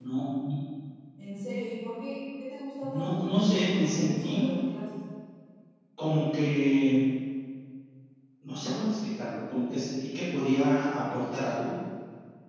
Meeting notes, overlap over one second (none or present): present